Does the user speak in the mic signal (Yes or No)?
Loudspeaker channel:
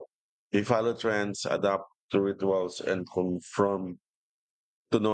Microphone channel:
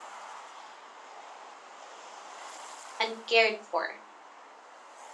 Yes